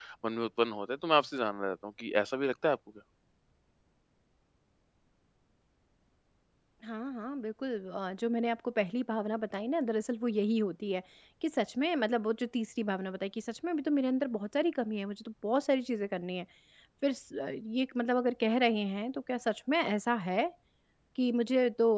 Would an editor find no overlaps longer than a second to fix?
Yes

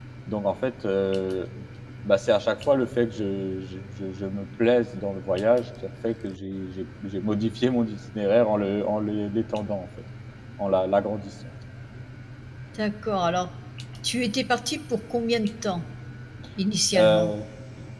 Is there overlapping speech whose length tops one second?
No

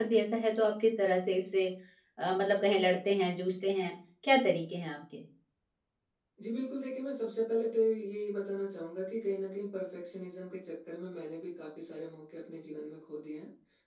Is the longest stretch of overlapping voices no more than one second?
Yes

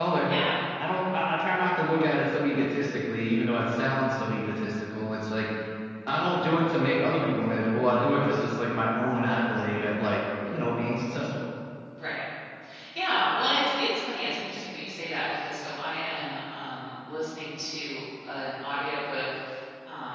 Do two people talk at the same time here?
No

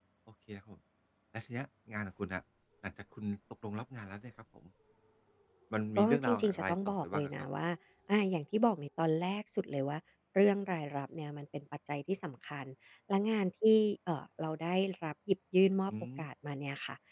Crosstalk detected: Yes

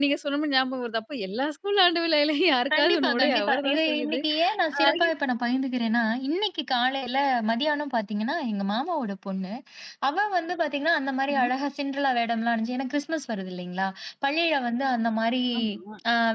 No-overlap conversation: No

